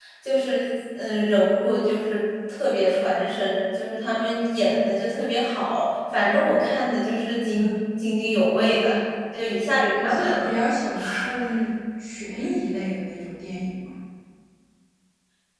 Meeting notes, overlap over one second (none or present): none